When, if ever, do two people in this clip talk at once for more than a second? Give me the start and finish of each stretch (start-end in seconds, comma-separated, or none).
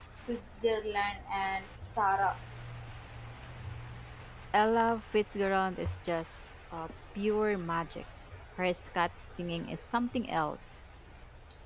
none